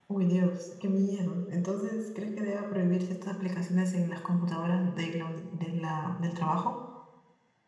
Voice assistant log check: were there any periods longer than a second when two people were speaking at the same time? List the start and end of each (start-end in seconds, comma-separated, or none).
none